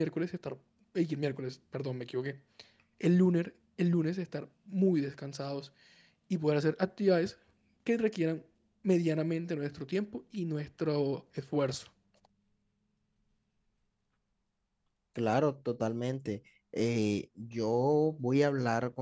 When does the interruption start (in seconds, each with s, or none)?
none